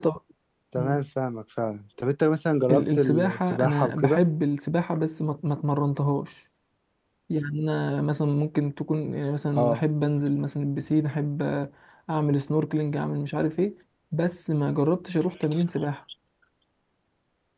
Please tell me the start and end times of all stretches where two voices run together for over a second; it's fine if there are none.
2.7-4.2

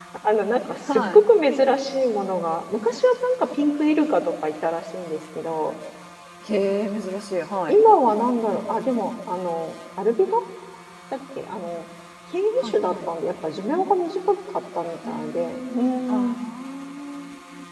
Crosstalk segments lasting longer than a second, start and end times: 15.1-16.4

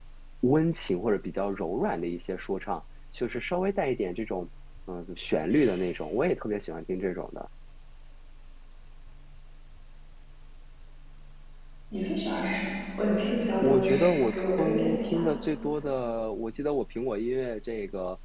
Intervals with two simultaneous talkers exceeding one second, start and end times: 13.6-15.2

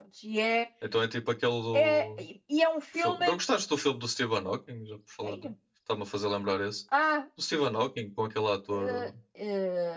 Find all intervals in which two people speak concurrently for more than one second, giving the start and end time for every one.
none

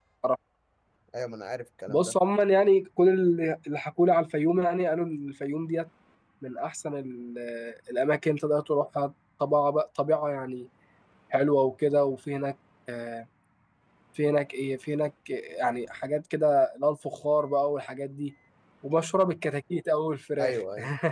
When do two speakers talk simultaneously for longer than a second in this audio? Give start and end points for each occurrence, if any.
none

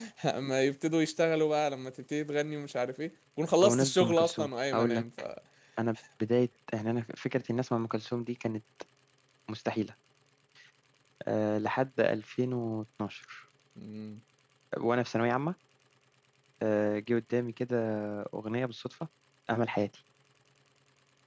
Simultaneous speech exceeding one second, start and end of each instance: 3.6-5.0

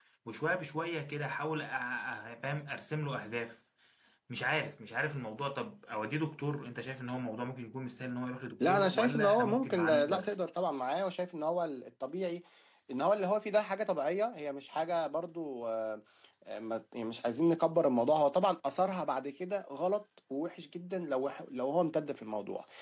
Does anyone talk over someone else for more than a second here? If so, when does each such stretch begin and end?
8.6-10.3

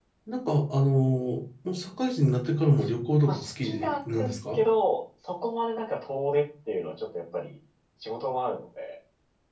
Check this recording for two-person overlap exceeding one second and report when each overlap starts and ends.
3.3-4.6

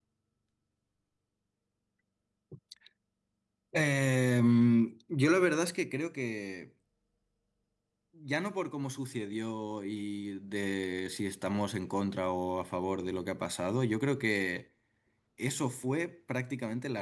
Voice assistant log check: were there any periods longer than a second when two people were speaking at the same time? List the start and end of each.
none

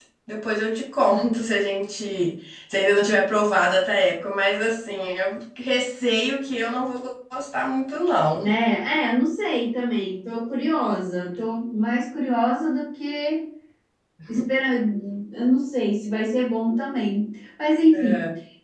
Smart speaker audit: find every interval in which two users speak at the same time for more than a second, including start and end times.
none

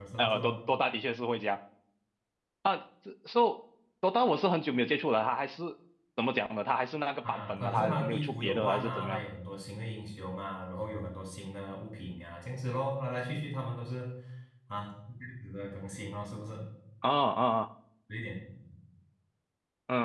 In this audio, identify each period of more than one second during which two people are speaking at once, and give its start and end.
7.2-9.2

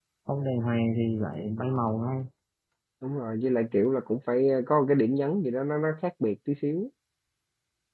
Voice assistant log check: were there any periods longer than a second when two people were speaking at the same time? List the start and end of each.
none

